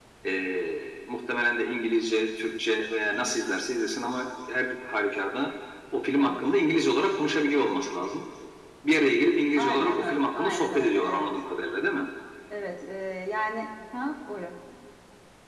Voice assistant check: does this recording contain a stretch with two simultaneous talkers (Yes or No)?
Yes